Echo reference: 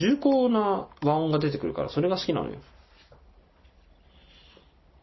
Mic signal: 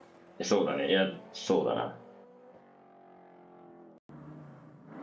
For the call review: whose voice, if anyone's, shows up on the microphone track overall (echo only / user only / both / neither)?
user only